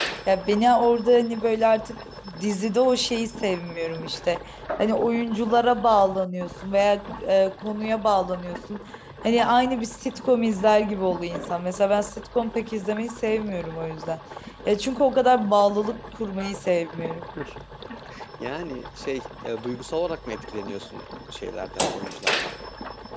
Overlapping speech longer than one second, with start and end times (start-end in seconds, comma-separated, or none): none